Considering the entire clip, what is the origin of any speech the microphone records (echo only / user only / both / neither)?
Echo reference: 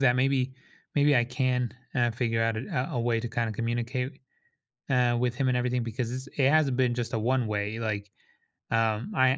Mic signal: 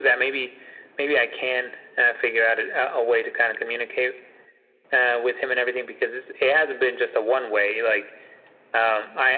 echo only